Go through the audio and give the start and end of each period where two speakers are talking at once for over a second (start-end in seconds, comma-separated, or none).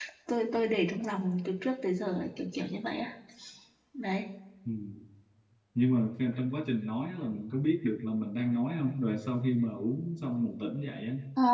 none